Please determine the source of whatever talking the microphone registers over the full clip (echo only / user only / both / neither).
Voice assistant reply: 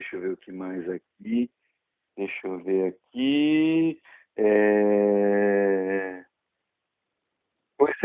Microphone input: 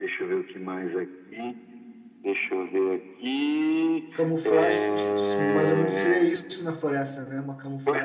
both